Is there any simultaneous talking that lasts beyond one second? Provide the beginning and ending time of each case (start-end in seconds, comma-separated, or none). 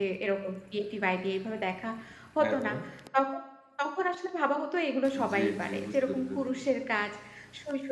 5.3-6.6